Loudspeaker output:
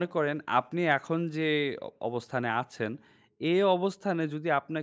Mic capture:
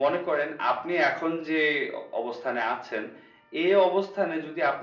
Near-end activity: none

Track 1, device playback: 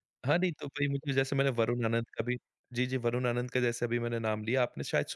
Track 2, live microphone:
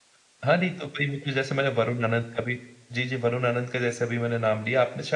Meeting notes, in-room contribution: none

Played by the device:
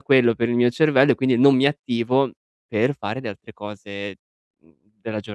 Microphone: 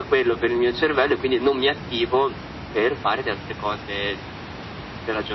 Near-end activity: none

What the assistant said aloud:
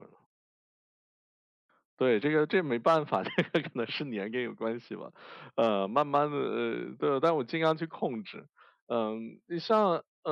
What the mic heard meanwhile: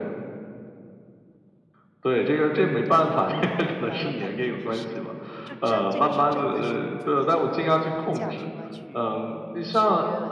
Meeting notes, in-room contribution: present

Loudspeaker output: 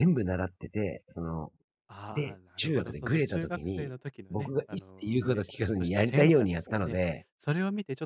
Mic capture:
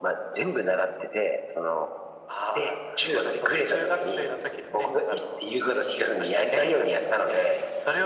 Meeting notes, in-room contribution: none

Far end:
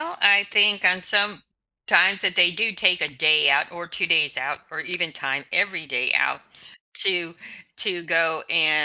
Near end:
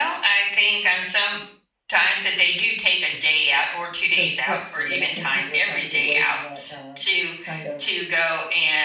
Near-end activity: present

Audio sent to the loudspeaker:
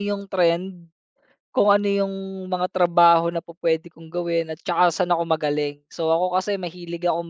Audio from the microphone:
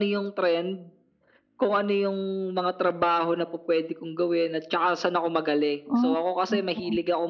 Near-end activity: present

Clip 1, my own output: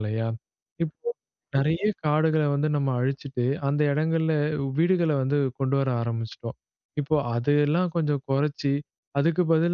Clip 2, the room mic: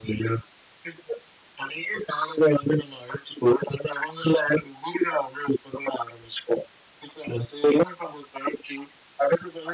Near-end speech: none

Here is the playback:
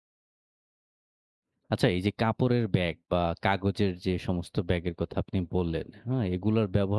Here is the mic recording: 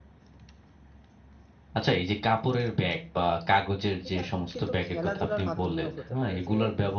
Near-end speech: present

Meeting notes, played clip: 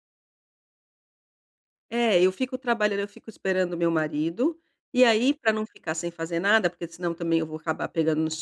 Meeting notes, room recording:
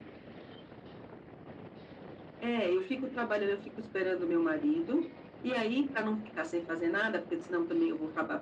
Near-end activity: none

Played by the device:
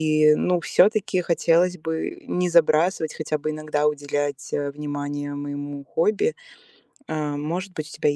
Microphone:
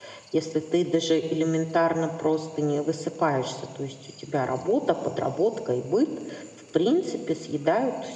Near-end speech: present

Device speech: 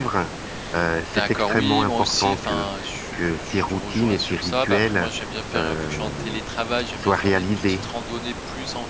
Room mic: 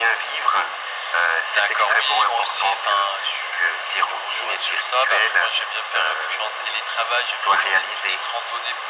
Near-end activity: none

